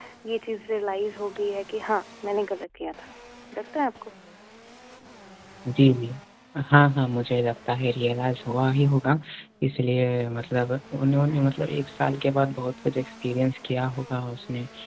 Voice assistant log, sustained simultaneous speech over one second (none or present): none